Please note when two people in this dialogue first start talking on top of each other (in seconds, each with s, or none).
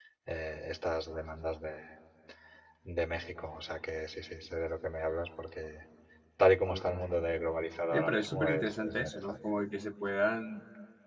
7.9 s